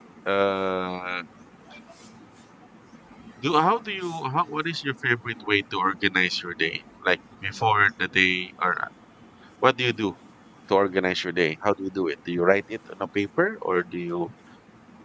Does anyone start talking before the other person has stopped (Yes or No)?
No